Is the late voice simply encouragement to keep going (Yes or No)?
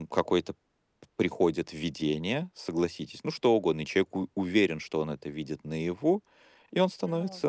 Yes